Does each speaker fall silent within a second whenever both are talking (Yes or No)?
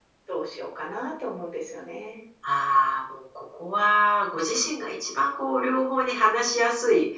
Yes